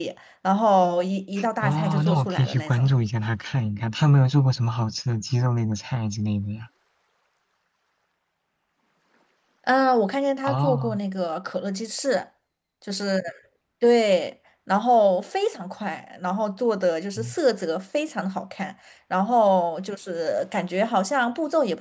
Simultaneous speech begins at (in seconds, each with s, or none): 1.6 s